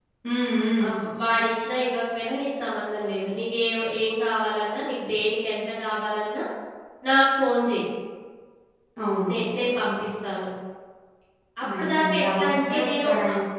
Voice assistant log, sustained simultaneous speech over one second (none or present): present